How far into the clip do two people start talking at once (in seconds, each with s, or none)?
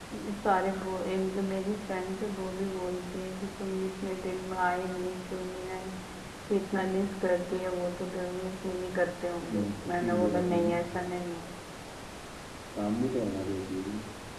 9.5 s